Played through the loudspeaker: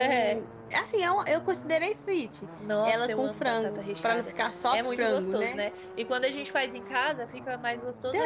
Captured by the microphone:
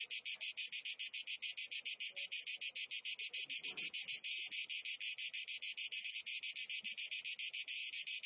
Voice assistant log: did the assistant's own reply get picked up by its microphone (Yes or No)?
No